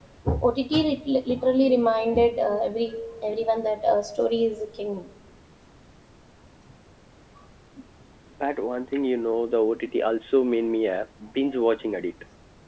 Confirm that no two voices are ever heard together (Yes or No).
Yes